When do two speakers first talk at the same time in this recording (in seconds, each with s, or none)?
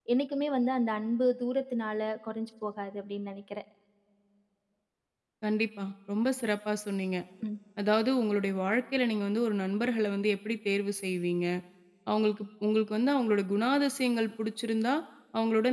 none